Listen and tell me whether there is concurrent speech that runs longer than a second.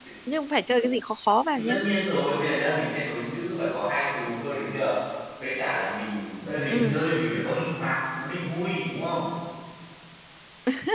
No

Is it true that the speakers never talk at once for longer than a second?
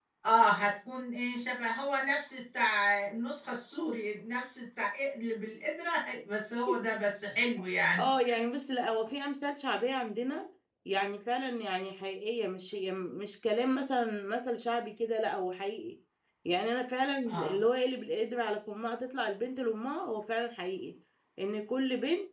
Yes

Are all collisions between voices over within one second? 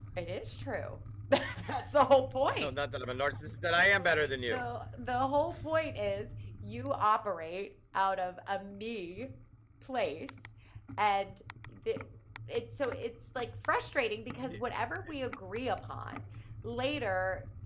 Yes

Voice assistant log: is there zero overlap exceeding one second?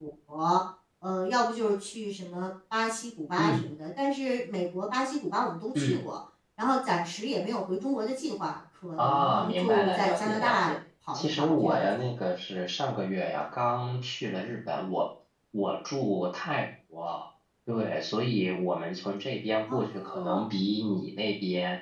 No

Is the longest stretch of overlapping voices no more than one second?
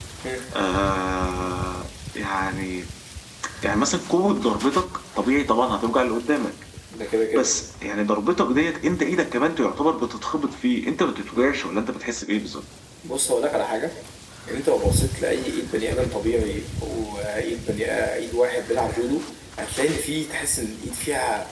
Yes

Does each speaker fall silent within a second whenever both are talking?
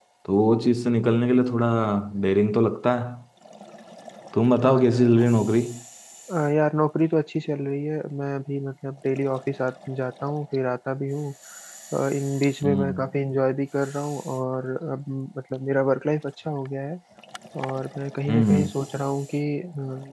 Yes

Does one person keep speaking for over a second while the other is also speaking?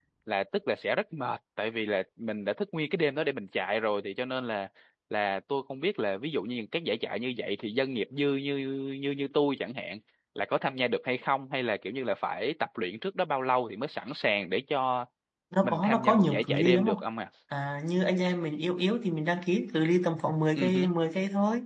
Yes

